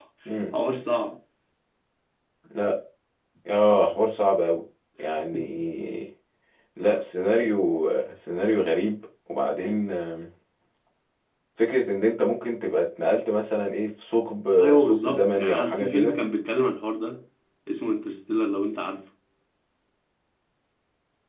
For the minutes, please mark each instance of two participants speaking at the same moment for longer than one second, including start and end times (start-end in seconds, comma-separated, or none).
14.6-16.2